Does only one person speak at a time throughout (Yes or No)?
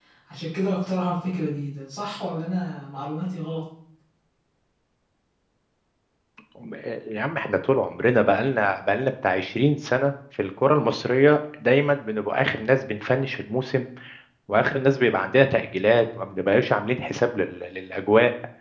Yes